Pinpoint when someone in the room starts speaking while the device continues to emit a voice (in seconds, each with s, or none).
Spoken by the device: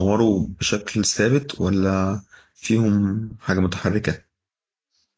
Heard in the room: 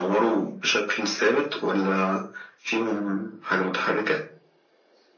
none